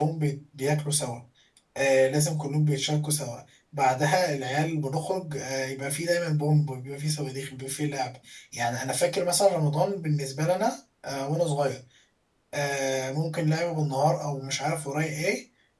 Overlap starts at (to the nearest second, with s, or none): none